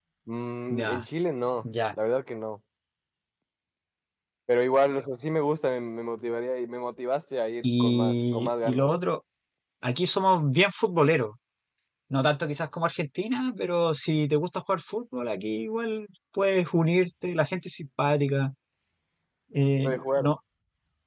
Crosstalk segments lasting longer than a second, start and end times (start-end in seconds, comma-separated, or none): 7.6-8.9